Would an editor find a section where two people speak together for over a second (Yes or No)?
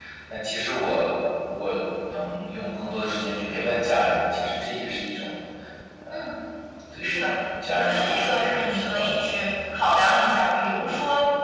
Yes